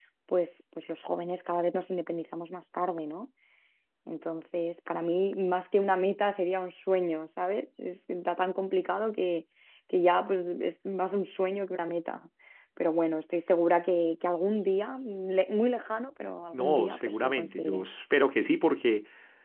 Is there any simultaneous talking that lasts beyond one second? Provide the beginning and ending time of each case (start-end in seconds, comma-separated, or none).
16.5-17.9